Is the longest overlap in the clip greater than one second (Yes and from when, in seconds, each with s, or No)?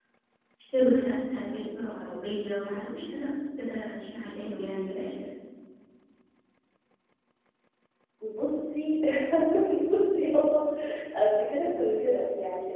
No